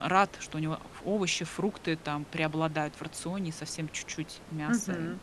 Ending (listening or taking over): taking over